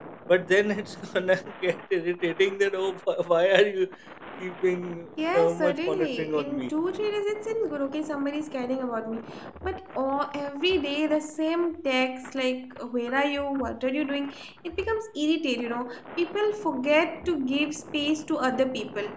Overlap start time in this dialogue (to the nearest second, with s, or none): 5 s